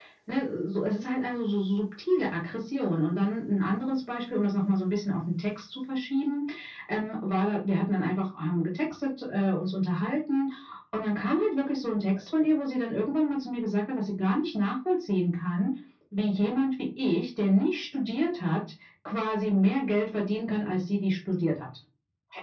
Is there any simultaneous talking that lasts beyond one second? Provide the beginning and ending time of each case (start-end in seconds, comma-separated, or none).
none